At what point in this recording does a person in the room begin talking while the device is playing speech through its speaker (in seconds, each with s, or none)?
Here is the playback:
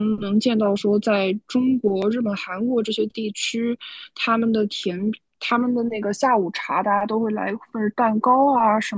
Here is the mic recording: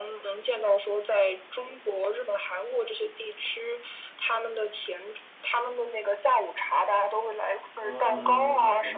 7.8 s